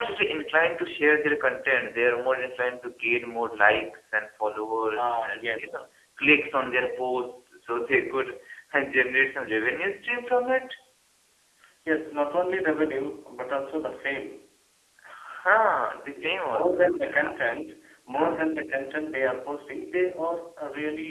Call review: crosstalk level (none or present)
present